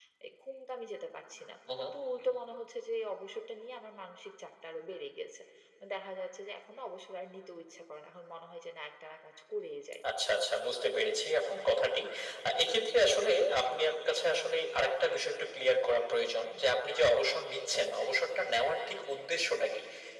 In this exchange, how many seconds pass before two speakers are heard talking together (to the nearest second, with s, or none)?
none